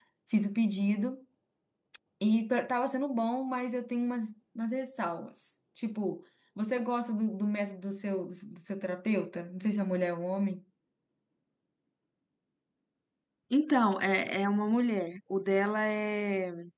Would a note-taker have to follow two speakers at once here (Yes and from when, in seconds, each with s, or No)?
No